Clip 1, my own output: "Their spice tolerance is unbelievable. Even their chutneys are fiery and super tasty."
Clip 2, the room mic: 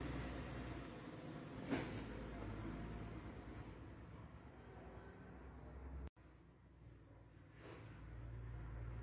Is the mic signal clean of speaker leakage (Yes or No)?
Yes